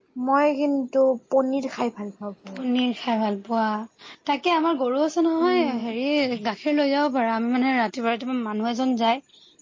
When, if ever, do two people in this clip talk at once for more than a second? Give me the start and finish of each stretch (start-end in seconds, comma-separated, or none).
none